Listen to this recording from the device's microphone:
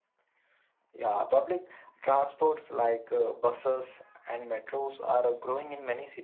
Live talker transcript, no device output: none

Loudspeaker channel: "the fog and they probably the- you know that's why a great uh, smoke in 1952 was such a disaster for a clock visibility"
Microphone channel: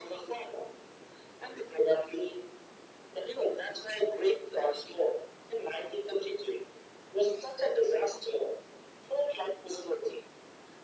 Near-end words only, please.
none

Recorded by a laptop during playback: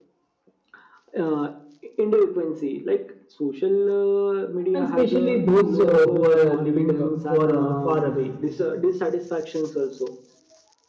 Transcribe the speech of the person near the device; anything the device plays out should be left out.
and especially those uh, who are living uh, for uh, far away.

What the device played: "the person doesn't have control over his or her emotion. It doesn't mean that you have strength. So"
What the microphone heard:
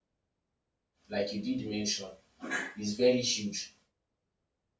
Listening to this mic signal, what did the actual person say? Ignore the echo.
like you did mention, is very huge.

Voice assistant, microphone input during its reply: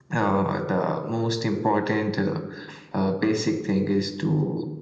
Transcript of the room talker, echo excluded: none

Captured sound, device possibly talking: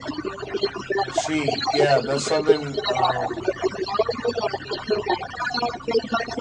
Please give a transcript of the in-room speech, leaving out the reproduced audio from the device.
I see. Yeah, that's something um,

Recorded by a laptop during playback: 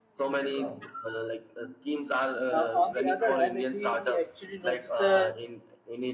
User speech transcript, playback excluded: uh, on the other hand if we actually notice the

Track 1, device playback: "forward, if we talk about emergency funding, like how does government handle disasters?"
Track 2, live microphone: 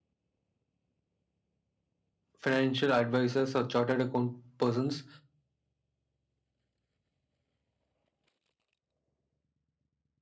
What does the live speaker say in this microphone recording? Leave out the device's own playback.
financial advisors or chartered account persons

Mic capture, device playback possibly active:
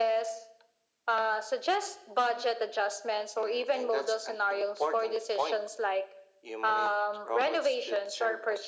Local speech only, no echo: none

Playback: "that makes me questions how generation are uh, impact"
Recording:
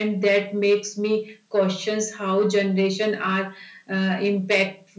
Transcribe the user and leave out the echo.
none

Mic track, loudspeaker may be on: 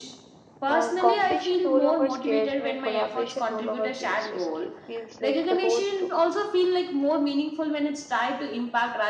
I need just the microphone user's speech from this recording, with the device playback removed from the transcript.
And competition no longer scares me, and collaboration no longer feels risky. It feels like the road to me.

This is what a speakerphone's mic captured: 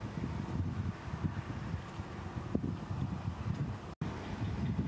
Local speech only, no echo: none

